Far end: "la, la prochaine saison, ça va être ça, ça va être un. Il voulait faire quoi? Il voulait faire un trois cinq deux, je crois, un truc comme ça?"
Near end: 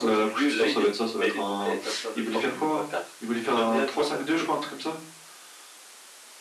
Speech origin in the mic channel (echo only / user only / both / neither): both